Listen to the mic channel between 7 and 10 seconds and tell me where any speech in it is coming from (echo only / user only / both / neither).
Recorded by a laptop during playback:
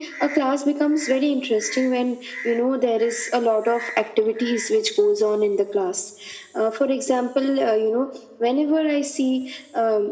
echo only